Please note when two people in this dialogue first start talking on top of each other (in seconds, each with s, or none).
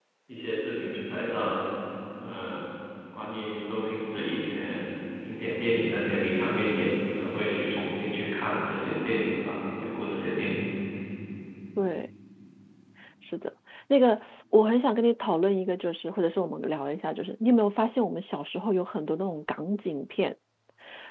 none